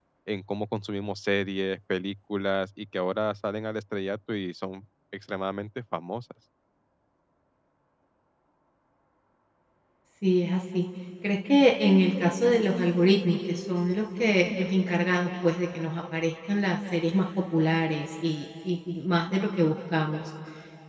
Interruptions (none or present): none